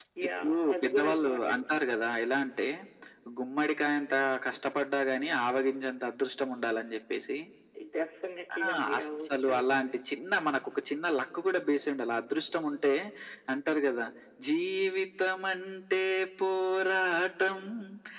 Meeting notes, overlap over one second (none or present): present